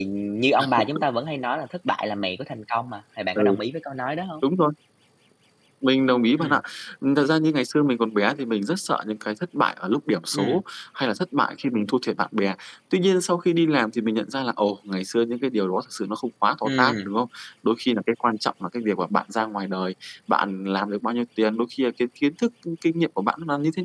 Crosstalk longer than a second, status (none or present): none